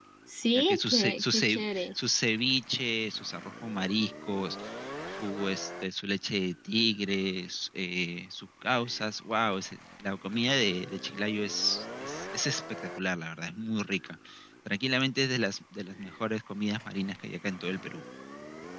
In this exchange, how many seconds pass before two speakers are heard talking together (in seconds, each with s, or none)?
0.5 s